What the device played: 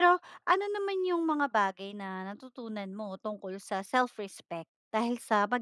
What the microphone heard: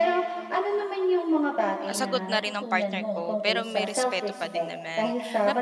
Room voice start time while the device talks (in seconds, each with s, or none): 1.9 s